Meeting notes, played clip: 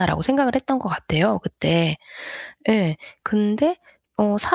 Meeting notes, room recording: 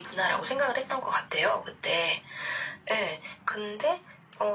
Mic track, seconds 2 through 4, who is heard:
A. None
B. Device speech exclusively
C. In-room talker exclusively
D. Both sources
B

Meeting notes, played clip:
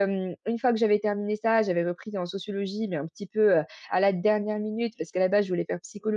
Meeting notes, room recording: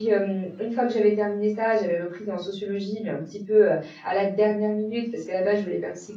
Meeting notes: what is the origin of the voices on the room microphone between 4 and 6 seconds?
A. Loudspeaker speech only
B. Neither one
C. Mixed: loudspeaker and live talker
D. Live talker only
A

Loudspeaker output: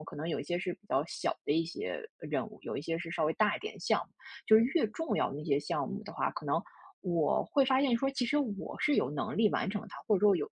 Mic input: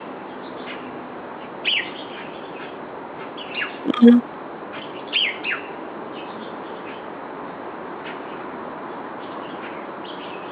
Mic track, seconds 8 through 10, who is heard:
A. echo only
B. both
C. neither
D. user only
C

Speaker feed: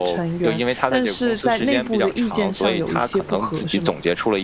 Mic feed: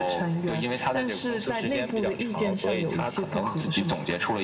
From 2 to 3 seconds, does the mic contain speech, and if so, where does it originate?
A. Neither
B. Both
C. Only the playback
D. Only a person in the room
C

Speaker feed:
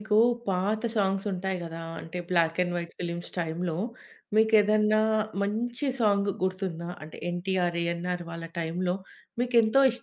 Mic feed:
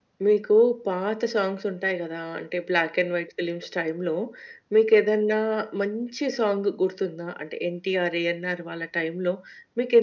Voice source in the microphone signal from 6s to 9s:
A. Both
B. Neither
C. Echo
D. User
C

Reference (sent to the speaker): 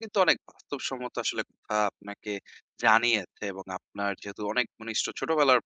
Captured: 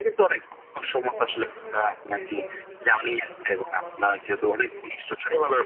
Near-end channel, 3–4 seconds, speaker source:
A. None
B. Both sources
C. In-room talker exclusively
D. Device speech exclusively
B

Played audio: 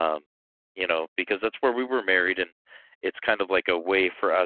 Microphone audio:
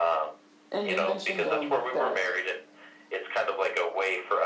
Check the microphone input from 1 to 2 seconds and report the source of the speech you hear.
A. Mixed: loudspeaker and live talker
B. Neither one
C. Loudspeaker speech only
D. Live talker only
A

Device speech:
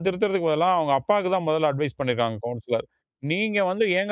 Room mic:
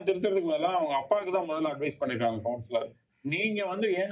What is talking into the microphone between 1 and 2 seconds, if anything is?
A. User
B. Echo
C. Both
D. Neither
B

